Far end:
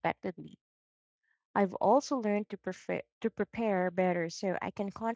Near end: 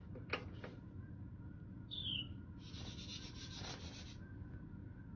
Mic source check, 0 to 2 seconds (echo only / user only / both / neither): neither